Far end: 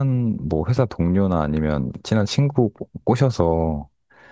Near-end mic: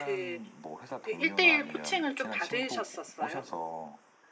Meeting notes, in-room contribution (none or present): present